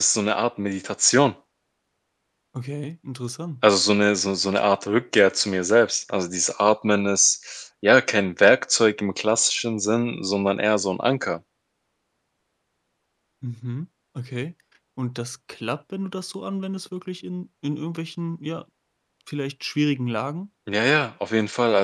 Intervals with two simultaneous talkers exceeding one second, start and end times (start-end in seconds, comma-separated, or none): none